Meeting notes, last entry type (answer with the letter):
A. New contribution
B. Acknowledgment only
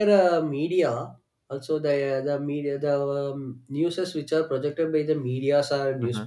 B